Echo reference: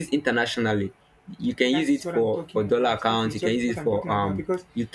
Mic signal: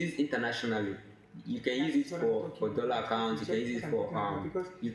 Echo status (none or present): present